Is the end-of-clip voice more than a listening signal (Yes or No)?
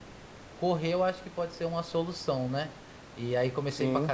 No